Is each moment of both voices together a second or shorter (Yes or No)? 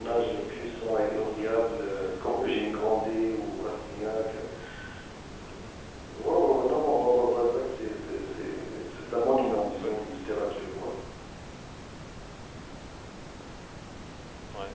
No